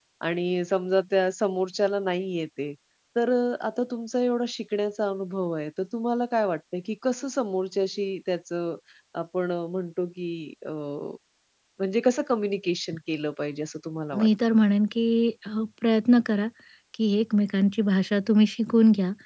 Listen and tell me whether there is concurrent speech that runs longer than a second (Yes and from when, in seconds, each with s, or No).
No